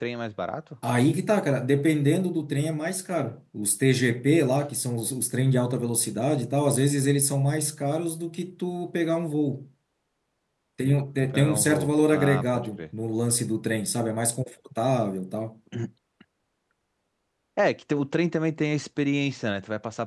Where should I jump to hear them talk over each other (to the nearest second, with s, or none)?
11 s